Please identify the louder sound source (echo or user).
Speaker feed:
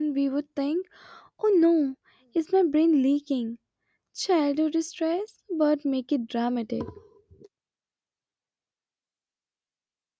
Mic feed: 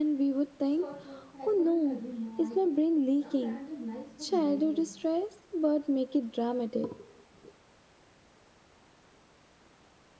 echo